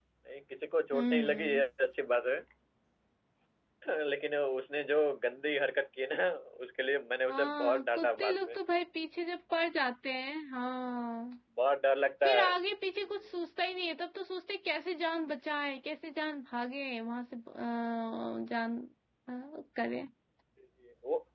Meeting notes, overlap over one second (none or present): present